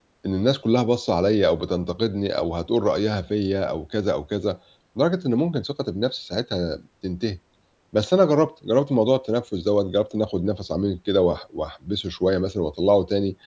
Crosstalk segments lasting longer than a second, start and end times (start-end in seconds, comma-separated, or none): none